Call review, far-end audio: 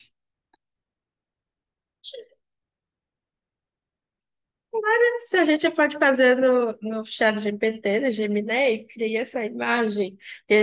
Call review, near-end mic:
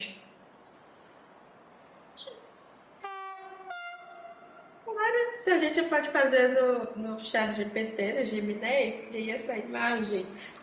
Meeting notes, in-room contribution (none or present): none